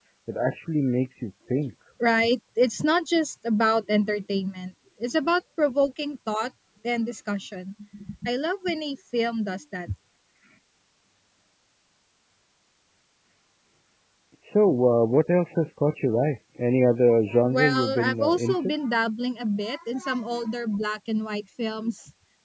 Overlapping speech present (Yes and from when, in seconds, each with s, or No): Yes, from 17.3 s